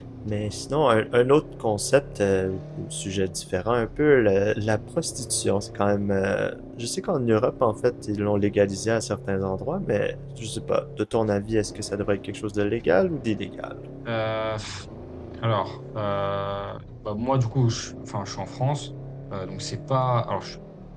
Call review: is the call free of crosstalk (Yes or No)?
Yes